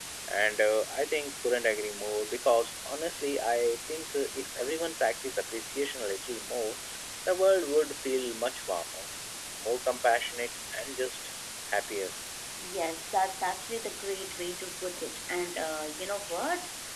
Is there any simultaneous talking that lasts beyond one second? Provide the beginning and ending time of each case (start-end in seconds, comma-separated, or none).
none